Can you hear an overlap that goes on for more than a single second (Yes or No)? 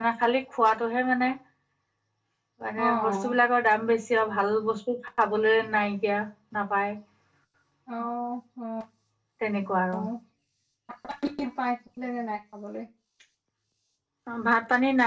No